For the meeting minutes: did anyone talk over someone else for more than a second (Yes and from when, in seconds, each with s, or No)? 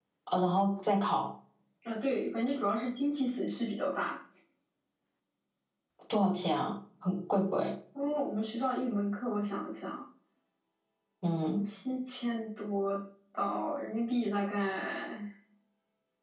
No